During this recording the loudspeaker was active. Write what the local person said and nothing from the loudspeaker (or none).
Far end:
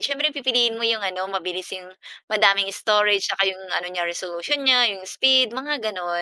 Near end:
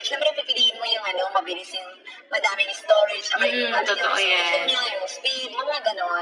Mm, totoo yan.